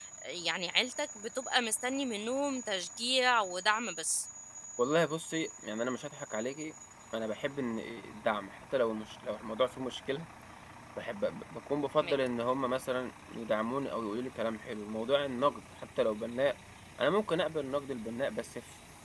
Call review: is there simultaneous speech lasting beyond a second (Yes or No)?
No